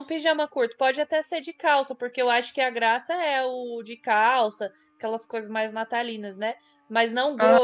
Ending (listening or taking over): listening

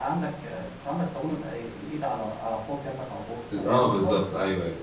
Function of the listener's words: taking over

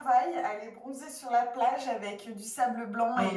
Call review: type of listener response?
listening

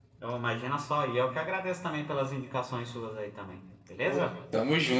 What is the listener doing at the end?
taking over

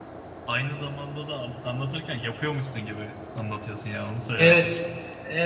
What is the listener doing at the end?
taking over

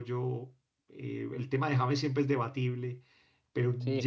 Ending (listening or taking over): listening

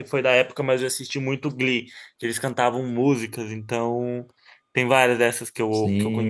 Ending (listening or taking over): taking over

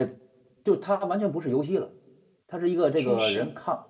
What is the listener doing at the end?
listening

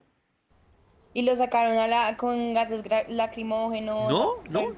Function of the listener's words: taking over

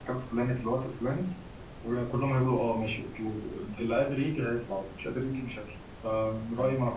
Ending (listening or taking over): taking over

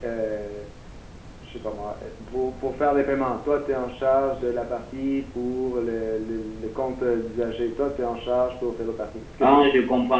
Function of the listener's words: taking over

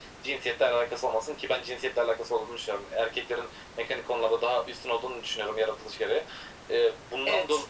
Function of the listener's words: listening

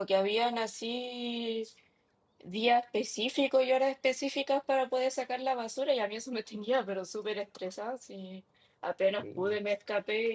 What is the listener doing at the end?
listening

